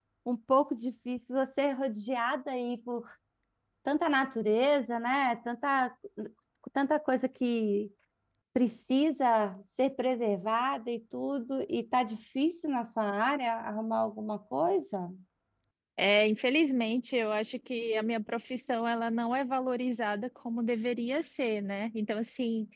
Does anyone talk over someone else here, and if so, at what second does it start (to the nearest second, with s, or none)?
none